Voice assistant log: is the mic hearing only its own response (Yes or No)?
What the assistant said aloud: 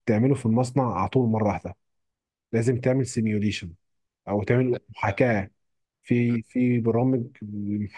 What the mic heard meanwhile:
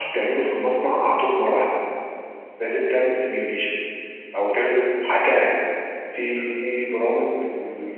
Yes